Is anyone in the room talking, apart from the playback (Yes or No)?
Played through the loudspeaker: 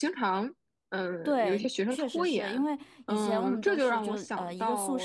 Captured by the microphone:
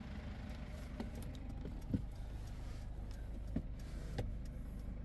No